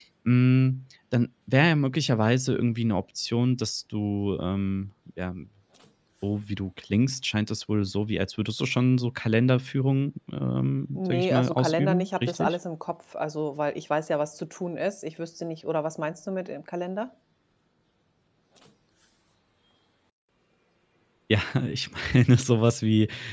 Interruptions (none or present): present